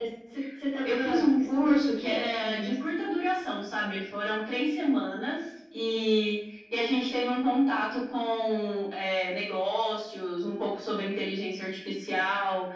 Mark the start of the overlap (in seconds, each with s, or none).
0.8 s